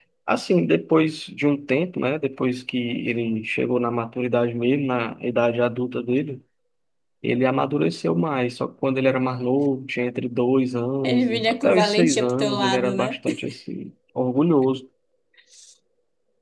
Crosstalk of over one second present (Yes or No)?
Yes